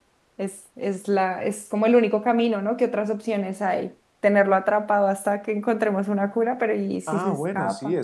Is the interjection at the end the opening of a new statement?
Yes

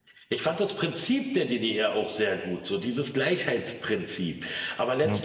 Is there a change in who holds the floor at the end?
No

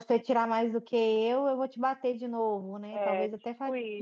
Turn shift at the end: Yes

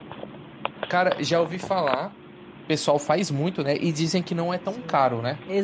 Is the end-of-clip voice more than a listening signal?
Yes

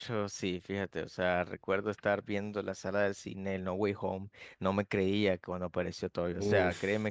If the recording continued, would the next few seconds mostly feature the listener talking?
No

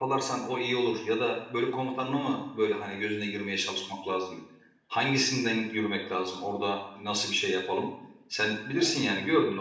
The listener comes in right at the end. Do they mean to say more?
No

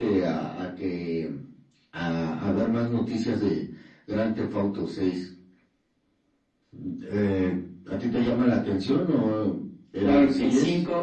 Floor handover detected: Yes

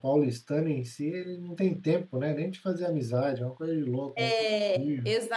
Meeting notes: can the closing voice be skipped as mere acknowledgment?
No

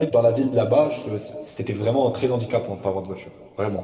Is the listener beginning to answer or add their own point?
Yes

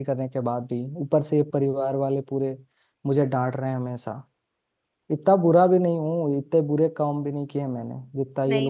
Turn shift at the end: Yes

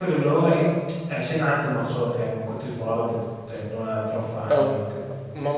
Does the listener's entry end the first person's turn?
Yes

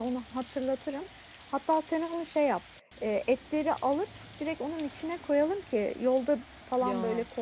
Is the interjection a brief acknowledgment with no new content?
Yes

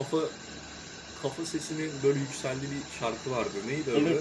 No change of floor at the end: No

